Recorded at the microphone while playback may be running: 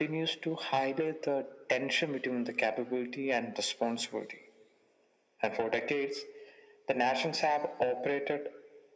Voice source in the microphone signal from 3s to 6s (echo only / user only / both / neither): echo only